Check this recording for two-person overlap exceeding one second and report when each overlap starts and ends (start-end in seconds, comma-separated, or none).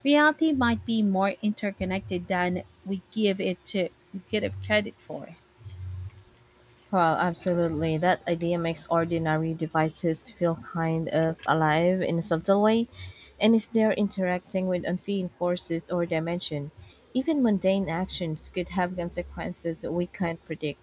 none